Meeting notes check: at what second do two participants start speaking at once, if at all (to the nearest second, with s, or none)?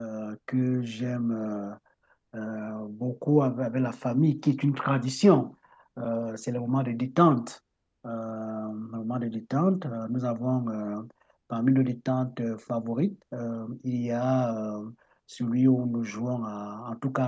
none